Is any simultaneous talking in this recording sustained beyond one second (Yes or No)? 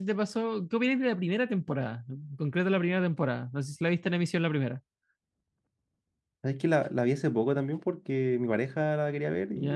No